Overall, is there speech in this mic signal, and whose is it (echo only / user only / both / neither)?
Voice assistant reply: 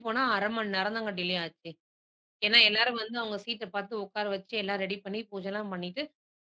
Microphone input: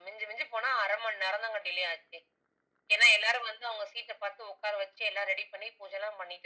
echo only